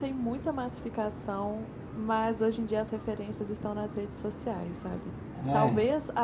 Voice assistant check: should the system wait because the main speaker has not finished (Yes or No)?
Yes